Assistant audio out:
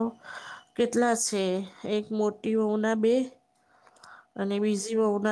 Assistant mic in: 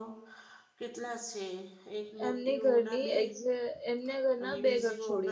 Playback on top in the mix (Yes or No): No